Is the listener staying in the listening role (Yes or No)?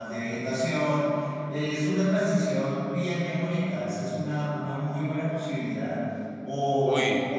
Yes